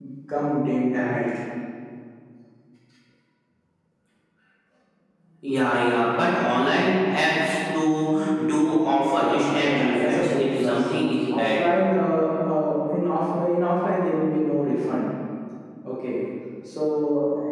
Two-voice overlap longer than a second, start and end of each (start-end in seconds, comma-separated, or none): 9.2-10.8